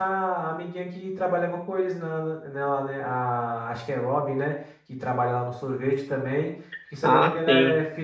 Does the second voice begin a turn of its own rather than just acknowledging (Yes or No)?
No